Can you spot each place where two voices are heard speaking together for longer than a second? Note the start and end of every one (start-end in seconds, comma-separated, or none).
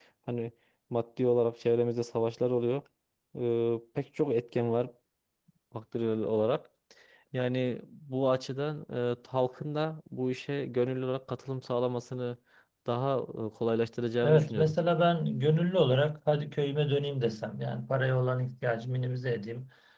none